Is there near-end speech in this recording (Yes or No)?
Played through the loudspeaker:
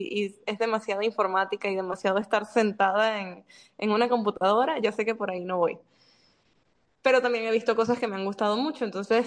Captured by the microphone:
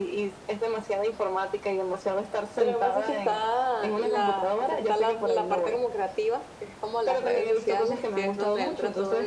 Yes